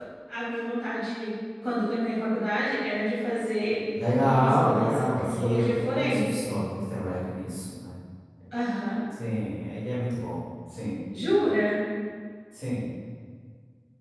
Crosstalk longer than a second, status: present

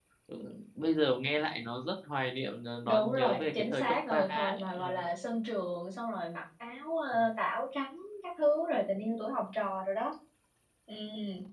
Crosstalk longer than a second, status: present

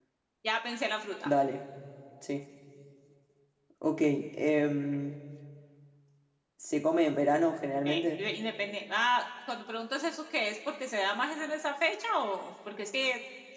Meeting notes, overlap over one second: none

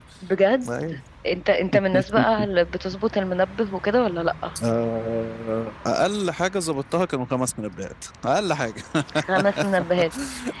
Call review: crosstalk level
none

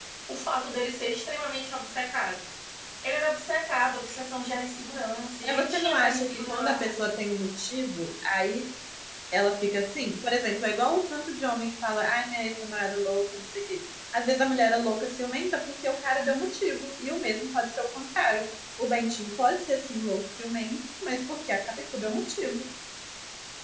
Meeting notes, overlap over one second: present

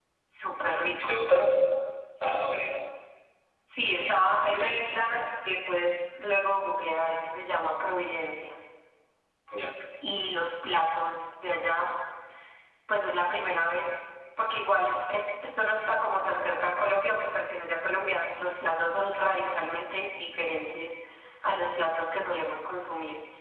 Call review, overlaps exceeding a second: none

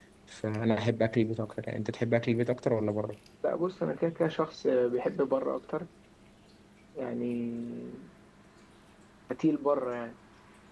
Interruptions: none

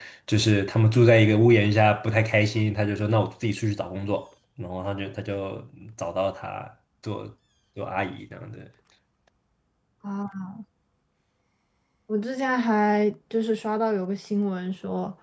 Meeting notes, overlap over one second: none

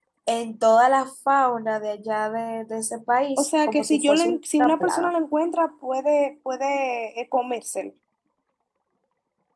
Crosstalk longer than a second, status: present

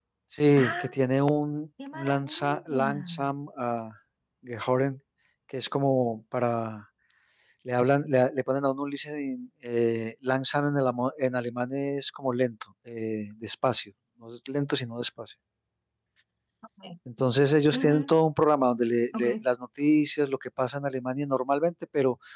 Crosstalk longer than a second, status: present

